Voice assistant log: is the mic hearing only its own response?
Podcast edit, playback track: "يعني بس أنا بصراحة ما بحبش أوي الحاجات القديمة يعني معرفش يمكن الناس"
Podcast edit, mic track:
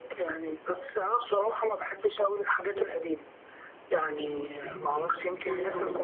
No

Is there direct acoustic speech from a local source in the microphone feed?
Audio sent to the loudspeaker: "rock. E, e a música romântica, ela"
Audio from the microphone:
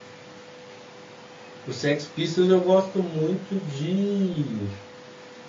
Yes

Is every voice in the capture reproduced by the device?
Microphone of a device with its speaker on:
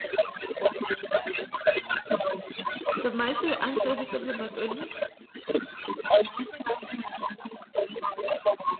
No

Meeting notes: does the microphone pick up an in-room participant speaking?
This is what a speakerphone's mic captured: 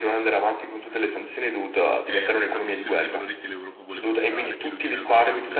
Yes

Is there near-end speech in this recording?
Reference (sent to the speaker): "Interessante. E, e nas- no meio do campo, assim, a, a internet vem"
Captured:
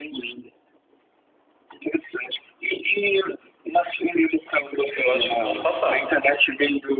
Yes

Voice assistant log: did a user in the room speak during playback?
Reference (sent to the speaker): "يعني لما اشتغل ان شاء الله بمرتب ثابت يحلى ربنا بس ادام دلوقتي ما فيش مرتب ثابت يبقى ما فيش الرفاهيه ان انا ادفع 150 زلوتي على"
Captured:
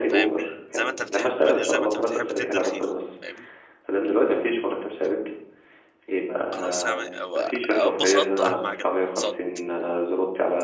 Yes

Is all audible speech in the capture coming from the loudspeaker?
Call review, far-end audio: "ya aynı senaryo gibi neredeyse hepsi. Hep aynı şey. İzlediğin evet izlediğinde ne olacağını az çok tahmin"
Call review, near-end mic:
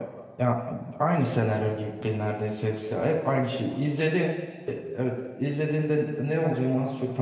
Yes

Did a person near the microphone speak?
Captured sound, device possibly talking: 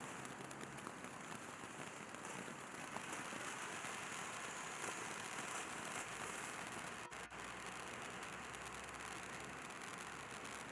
No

